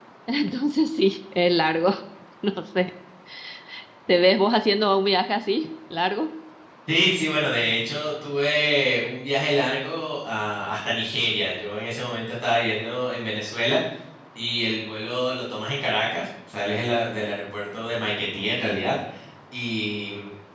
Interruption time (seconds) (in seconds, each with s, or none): none